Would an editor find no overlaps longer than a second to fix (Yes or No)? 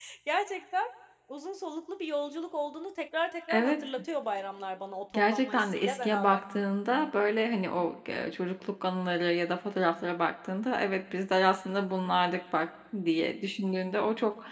No